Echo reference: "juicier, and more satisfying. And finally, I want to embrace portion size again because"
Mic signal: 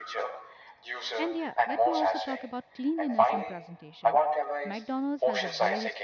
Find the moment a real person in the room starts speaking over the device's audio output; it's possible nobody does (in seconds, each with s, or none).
1.1 s